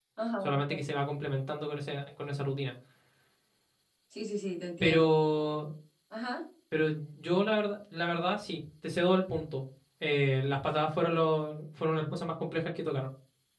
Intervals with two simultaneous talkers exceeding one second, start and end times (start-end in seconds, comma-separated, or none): none